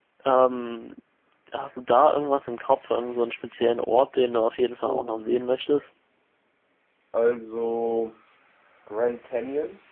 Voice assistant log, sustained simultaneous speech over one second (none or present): none